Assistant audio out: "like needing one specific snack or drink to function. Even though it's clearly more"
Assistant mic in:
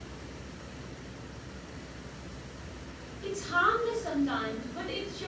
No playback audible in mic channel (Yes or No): Yes